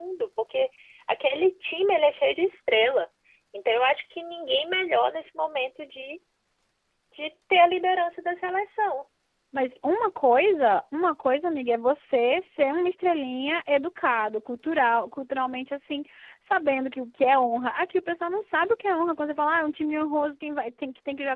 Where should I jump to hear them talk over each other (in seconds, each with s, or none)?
none